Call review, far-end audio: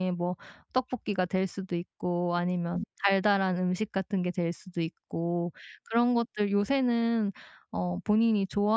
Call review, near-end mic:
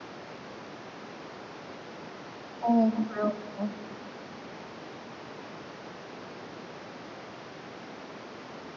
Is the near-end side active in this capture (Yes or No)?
Yes